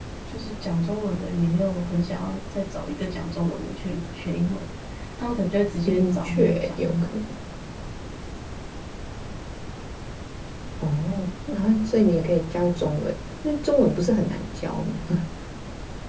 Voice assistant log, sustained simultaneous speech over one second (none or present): present